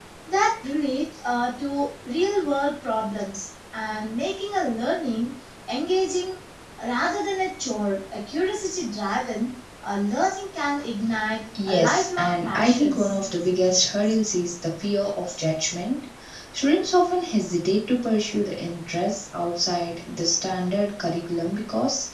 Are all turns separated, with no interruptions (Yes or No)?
No